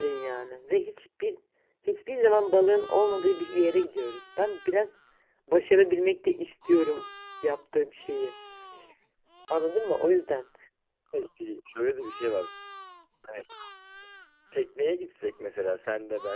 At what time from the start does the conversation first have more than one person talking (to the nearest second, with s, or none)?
none